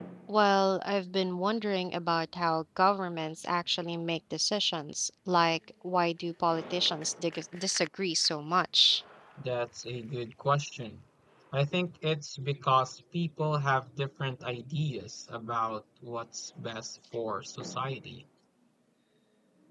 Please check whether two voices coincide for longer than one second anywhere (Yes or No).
No